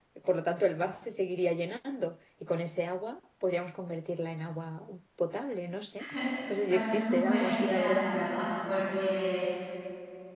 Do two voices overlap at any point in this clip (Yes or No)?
Yes